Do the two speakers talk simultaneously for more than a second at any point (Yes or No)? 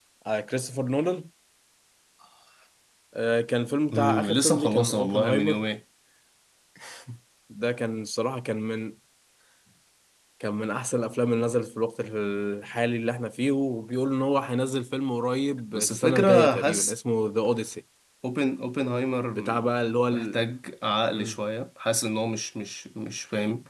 Yes